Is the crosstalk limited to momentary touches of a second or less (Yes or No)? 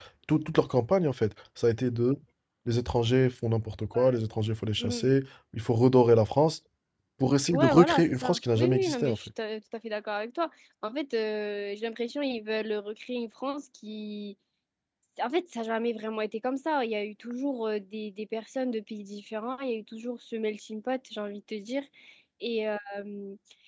No